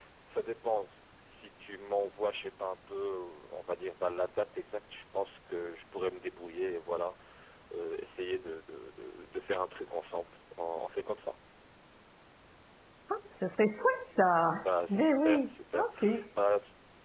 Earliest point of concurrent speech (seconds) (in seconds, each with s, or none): 14.6 s